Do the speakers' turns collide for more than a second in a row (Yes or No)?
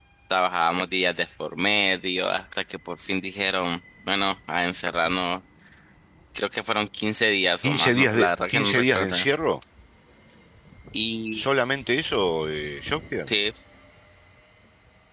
Yes